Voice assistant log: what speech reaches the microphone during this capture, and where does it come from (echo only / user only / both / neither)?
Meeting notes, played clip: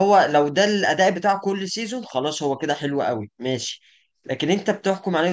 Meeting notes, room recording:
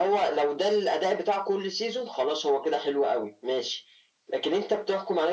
echo only